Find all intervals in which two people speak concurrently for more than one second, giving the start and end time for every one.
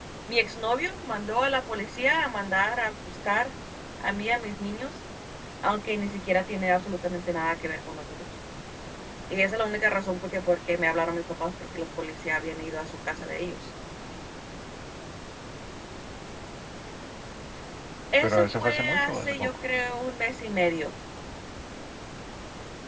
18.2-19.5

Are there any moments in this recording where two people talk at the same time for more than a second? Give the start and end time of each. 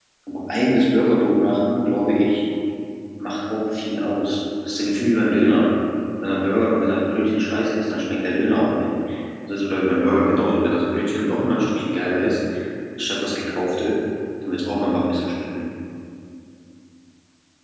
none

